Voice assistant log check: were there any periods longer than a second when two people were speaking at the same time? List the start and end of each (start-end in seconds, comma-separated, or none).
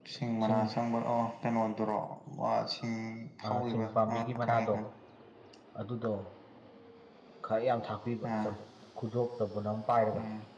3.5-4.7